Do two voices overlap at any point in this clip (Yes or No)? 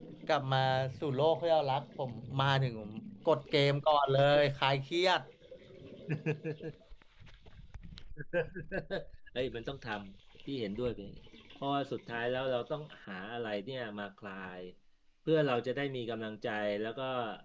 No